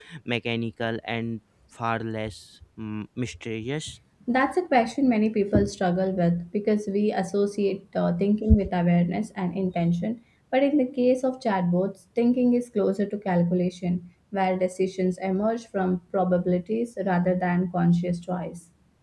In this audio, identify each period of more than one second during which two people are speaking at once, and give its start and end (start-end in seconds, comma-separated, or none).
none